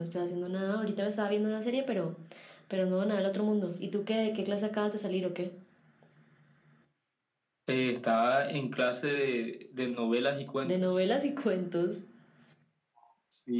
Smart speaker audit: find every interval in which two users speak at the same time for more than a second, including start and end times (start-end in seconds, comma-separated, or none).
none